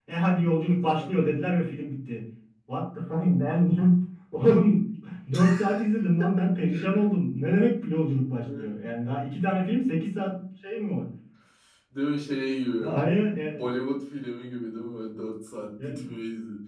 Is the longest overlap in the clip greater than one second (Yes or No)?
No